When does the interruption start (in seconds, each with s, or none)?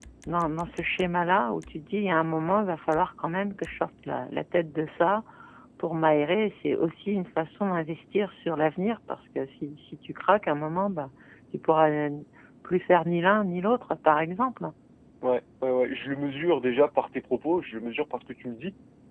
none